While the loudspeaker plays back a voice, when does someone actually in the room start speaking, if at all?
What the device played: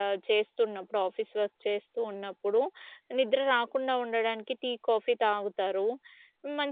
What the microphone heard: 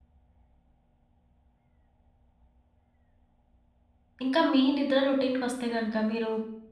4.2 s

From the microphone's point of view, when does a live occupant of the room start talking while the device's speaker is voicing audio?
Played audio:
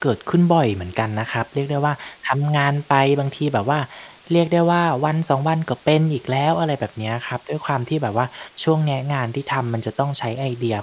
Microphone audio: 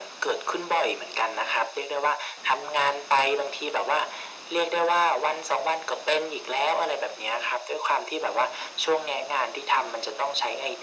none

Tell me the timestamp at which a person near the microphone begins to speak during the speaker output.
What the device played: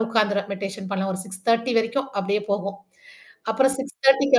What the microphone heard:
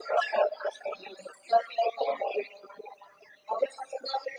none

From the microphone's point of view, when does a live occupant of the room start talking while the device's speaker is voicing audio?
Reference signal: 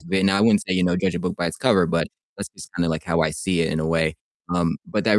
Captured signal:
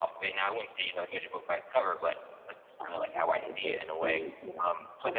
2.8 s

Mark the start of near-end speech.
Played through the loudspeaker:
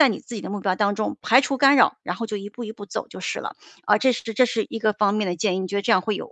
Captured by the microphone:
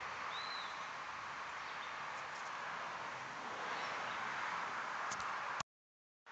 none

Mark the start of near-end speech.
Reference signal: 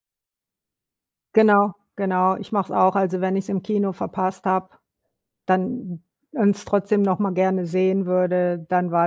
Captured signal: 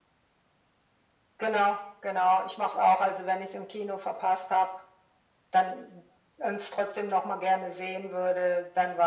none

